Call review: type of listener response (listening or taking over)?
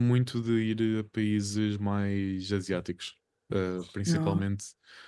listening